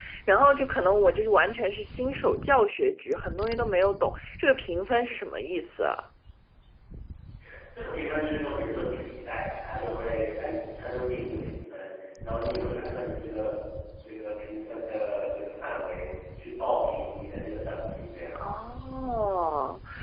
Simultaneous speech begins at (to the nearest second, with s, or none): none